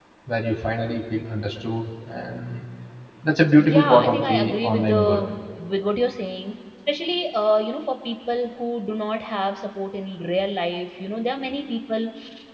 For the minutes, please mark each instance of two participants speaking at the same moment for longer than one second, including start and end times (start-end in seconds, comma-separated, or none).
3.6-5.2